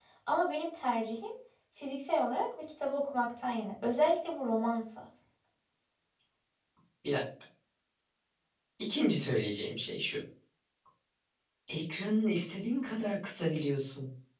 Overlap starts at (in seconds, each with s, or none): none